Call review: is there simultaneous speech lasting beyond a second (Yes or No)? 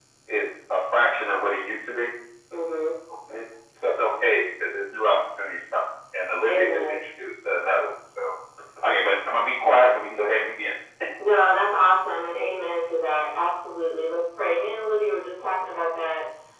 No